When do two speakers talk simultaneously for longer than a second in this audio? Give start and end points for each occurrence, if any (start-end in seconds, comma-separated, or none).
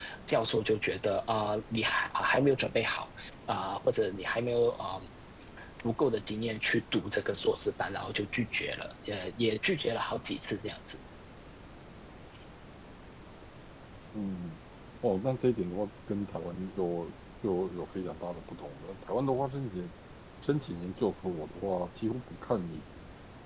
none